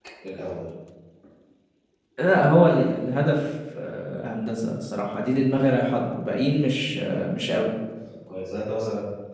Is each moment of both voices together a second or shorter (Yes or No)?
Yes